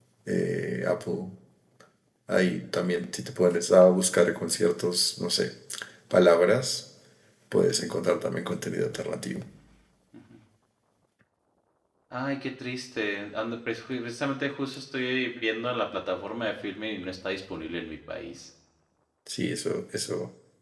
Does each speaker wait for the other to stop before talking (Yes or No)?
Yes